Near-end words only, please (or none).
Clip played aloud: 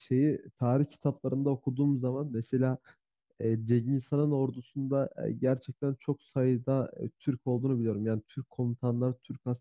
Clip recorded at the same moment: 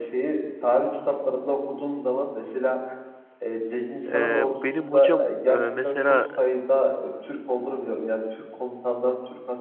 E, benim hocam e, mesela